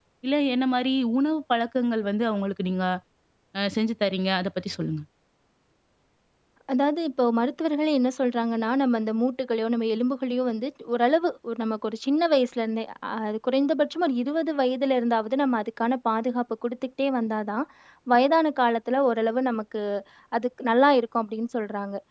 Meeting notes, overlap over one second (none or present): none